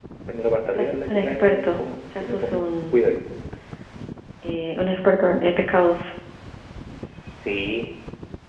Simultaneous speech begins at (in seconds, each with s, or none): 0.8 s